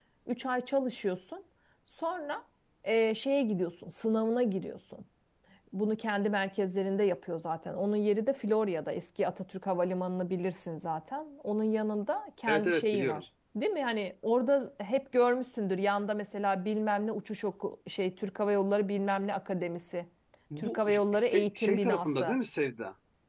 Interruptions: present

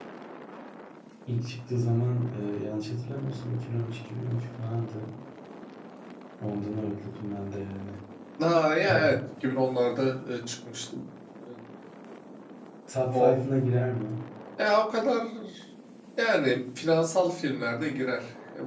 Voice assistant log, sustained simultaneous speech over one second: none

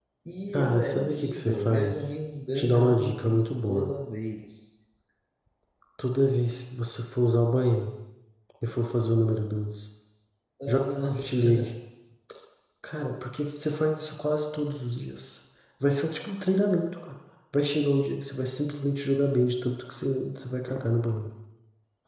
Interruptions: present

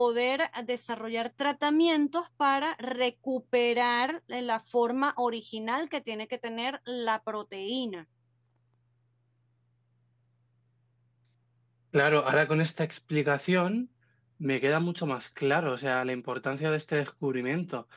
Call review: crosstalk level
none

